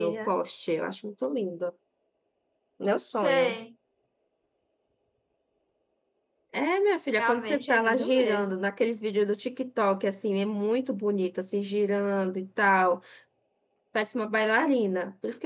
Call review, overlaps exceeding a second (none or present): present